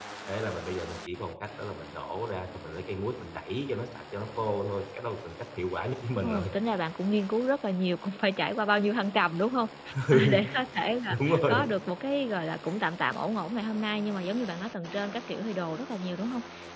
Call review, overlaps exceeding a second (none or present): none